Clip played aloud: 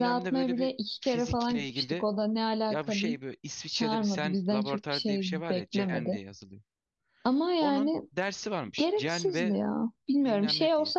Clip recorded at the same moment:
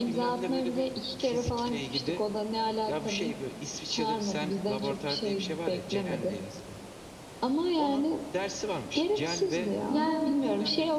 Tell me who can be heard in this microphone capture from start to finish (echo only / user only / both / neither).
both